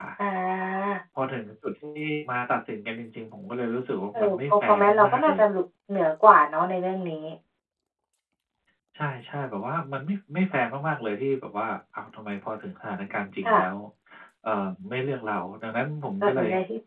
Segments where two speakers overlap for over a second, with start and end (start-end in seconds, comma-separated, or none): 4.1-5.4